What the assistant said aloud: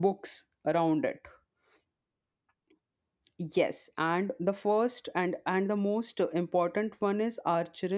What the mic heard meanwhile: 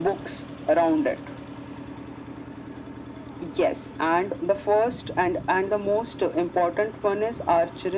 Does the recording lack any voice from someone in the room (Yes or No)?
Yes